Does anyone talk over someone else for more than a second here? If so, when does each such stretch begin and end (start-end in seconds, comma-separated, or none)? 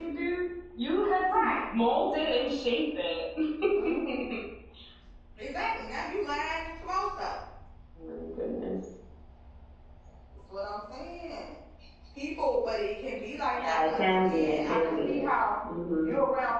13.6-15.2